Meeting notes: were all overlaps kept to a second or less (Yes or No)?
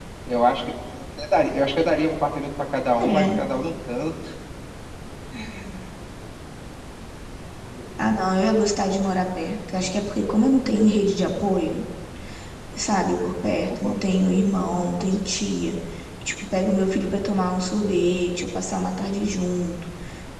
Yes